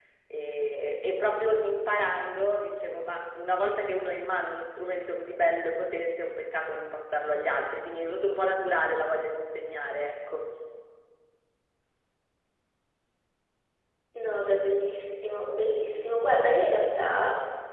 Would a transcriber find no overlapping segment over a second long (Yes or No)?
Yes